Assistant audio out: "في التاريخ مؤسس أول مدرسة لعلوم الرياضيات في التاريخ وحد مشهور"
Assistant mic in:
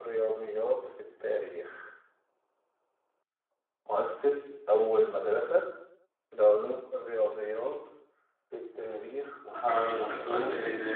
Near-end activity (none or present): present